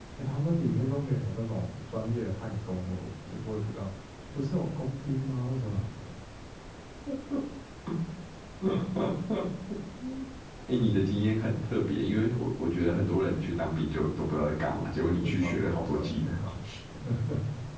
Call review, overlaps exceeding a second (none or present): present